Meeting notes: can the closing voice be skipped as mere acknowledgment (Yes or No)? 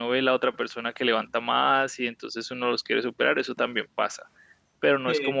Yes